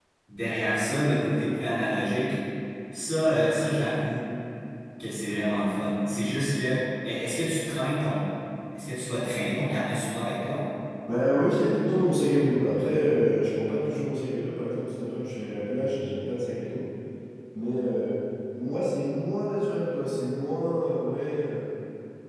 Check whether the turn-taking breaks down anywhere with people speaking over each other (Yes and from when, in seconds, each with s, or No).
No